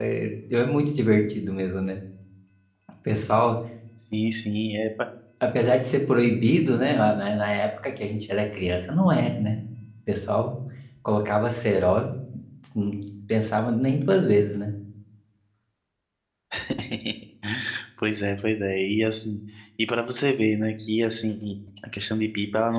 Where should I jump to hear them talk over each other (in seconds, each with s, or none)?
none